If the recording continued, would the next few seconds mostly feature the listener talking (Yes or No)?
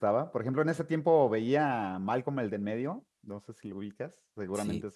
Yes